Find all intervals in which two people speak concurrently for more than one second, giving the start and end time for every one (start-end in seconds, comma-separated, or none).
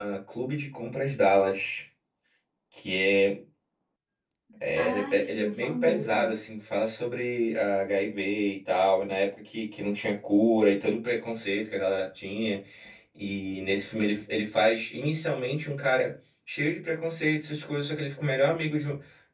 4.8-6.3